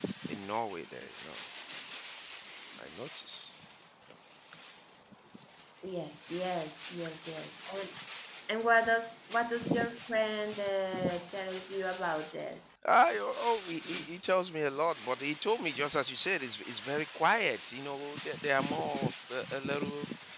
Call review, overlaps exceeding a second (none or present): none